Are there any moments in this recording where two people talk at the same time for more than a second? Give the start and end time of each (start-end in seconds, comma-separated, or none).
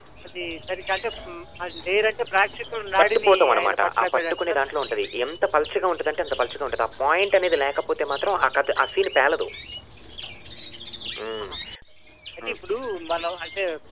3.0-4.7